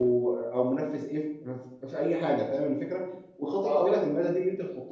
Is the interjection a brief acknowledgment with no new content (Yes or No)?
Yes